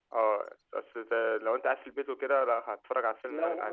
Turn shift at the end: Yes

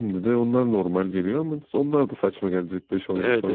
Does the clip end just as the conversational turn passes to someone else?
Yes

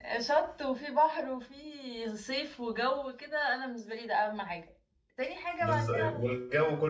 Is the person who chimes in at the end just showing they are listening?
No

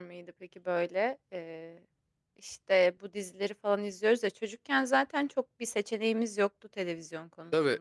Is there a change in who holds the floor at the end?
Yes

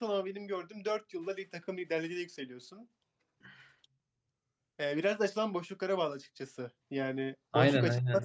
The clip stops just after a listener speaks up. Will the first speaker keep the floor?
Yes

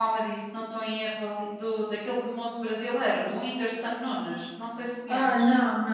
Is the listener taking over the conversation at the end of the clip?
Yes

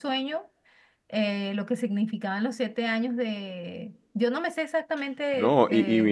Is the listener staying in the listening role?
No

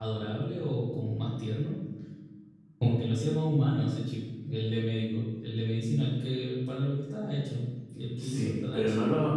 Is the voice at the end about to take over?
Yes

